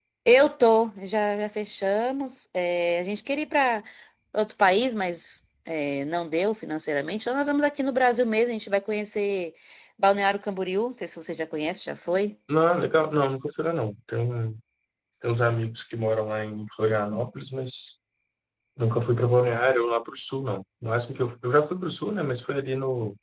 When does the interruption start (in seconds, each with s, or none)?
none